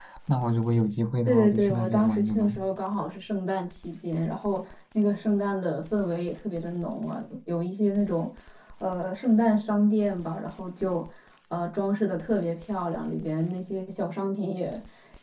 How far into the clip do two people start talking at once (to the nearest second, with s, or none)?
1 s